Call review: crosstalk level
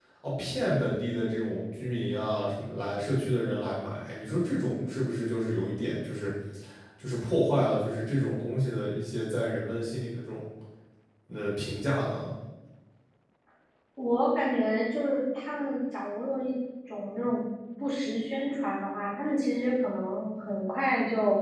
none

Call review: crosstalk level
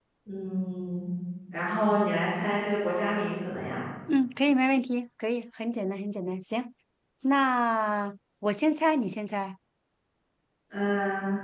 none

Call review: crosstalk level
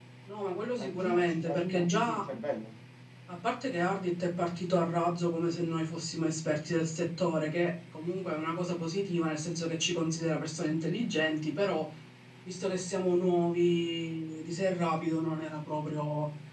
present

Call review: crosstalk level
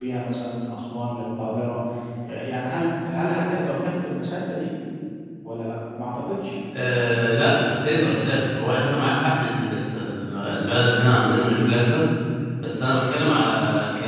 none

